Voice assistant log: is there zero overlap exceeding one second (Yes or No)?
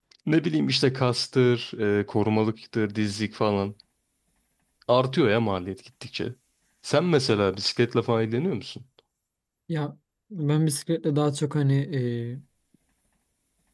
Yes